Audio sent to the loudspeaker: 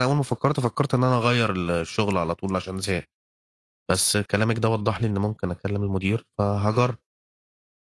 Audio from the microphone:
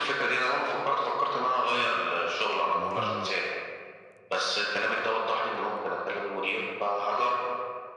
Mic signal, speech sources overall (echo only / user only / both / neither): both